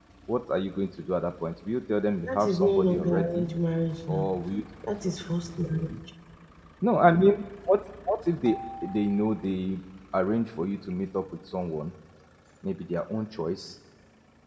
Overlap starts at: 2.2 s

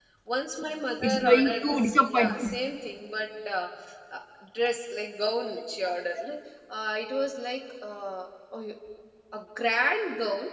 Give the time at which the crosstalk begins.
1.0 s

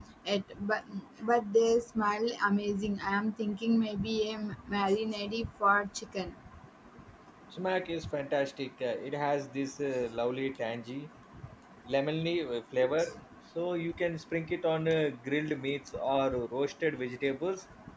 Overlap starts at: none

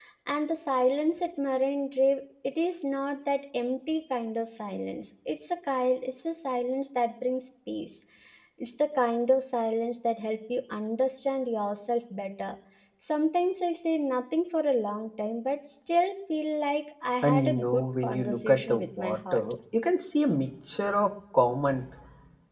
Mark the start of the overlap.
17.2 s

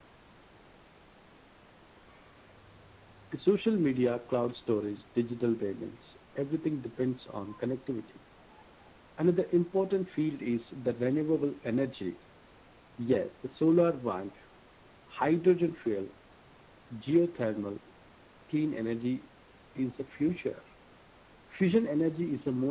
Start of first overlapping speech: none

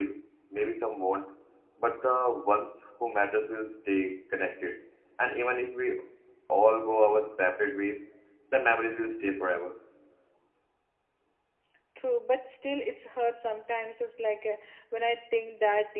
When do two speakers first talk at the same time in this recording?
none

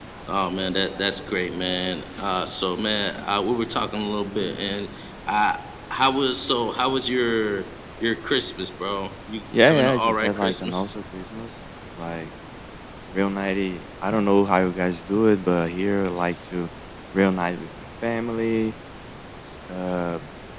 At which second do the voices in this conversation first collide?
9.5 s

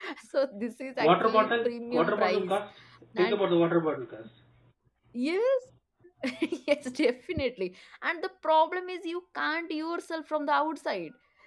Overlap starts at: 1.0 s

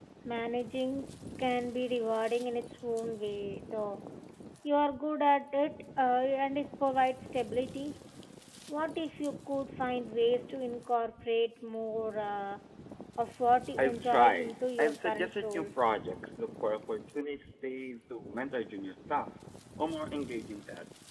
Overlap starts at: 13.8 s

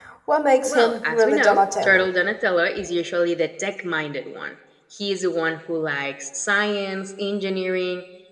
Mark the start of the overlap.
0.7 s

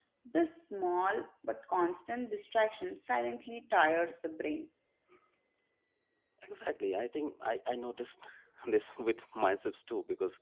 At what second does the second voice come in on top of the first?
none

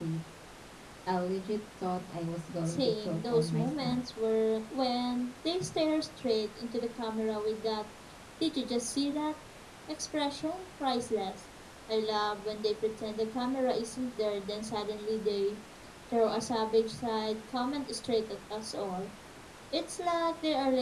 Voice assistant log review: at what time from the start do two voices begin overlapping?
2.6 s

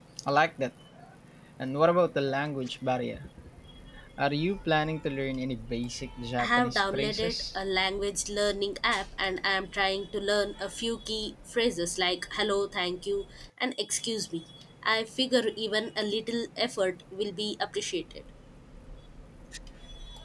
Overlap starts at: 6.4 s

